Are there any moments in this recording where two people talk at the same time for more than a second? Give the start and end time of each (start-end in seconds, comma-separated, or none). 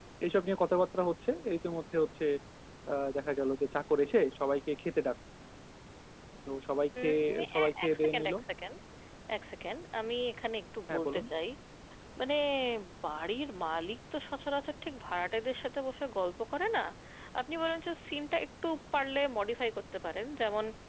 7.0-8.3